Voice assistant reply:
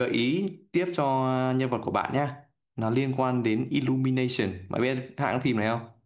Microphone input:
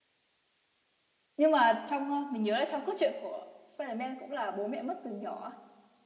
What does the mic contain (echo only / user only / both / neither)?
user only